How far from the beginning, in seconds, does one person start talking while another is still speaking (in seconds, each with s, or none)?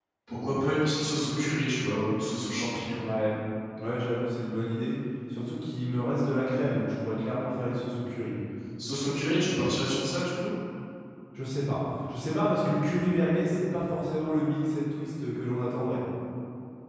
none